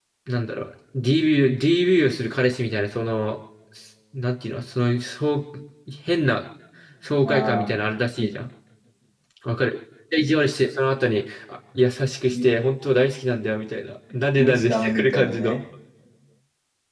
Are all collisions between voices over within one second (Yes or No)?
No